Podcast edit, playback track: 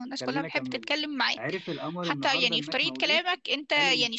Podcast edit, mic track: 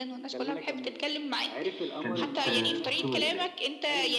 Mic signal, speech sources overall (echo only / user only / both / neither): both